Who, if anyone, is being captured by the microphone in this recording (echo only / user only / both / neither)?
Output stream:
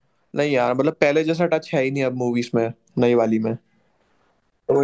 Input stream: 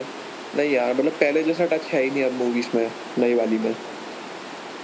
echo only